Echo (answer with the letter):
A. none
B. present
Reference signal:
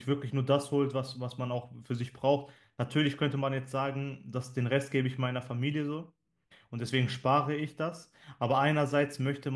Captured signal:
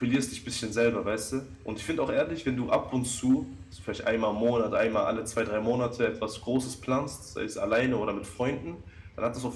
A